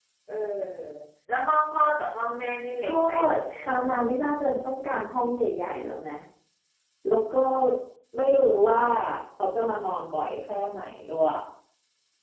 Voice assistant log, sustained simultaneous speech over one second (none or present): none